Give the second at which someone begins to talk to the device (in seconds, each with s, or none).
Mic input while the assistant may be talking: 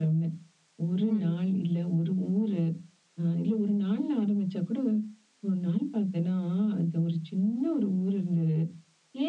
1.0 s